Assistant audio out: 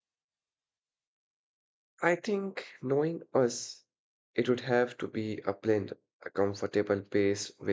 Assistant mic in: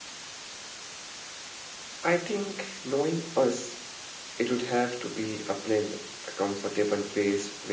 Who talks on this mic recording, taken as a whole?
echo only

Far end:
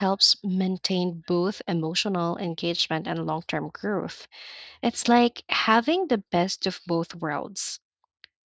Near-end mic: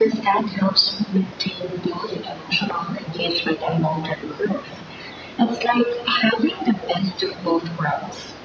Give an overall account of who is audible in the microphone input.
echo only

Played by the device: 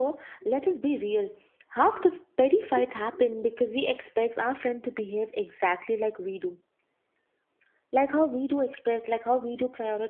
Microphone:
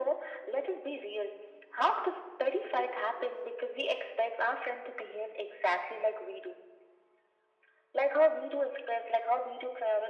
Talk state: echo only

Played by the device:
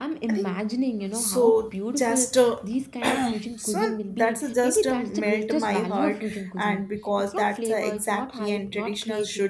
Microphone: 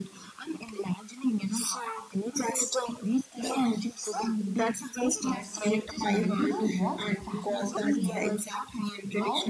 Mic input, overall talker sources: both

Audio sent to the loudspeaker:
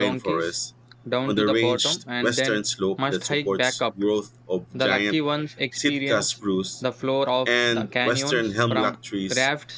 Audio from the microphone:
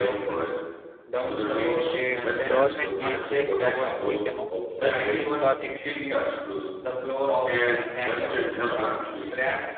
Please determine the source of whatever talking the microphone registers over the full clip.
both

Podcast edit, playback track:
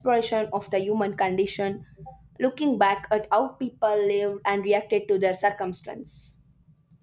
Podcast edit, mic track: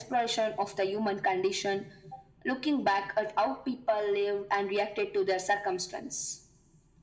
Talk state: echo only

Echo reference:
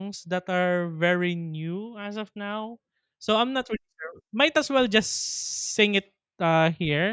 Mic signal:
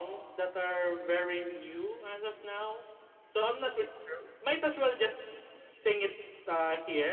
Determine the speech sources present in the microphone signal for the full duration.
echo only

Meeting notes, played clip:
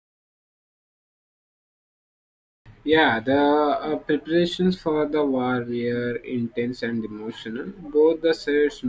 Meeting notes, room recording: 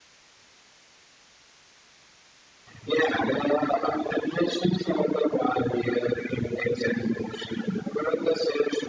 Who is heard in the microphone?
echo only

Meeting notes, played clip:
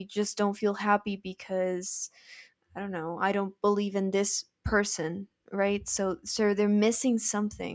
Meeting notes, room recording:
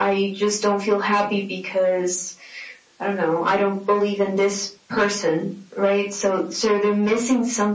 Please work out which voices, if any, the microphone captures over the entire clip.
echo only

